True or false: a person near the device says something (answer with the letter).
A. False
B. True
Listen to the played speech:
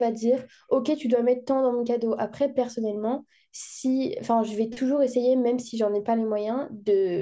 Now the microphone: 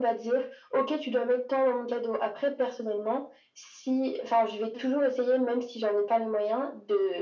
A